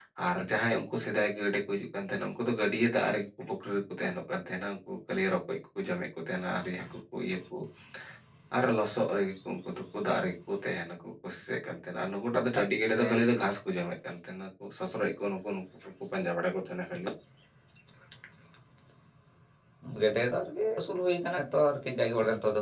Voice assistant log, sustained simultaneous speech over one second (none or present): none